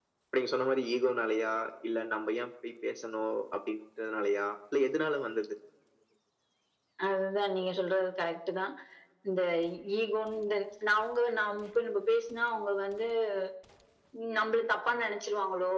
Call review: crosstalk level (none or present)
none